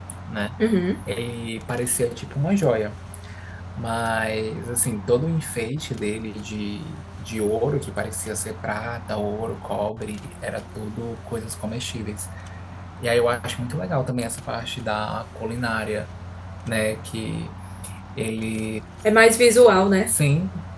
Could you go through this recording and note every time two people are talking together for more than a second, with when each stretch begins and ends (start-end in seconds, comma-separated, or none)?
none